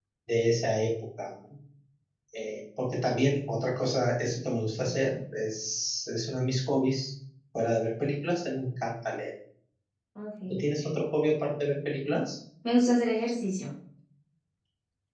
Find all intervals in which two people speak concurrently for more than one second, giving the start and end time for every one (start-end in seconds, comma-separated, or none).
none